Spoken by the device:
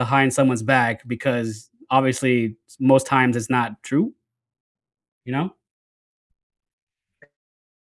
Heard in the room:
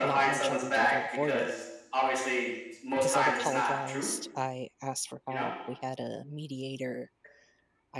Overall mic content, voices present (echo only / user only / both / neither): both